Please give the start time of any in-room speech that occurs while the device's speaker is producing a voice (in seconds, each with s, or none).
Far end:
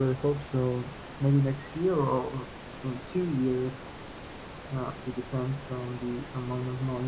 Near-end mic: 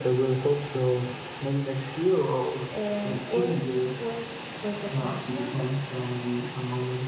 2.7 s